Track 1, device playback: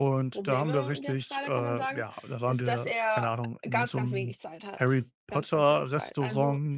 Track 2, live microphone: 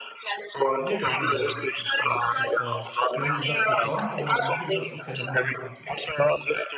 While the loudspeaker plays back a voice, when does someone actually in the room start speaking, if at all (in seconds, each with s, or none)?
0.8 s